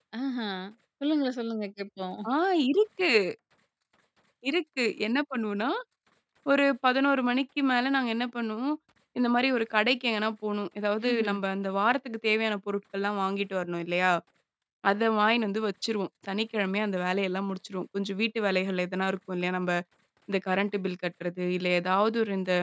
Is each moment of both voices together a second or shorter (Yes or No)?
Yes